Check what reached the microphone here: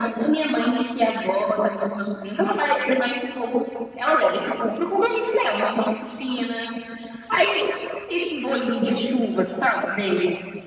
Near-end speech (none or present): none